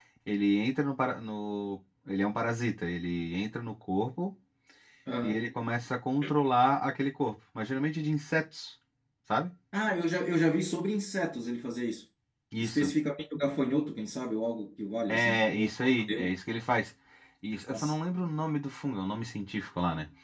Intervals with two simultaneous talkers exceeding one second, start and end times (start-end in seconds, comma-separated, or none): 15.1-16.3